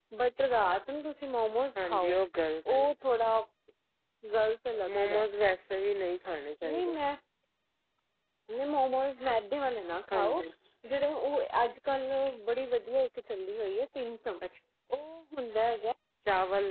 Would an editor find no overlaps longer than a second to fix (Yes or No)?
Yes